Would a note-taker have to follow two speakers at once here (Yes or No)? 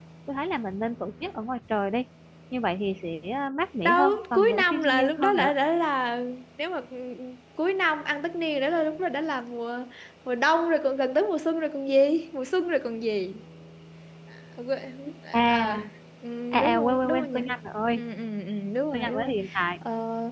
Yes